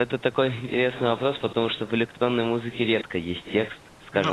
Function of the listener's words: listening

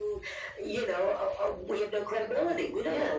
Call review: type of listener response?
taking over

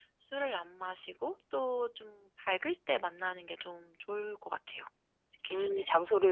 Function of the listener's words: taking over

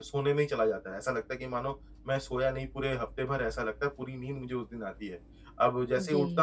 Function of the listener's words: listening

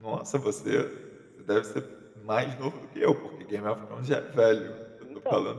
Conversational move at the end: listening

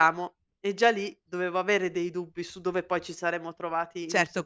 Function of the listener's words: taking over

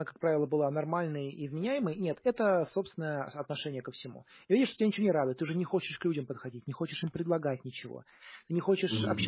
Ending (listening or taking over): listening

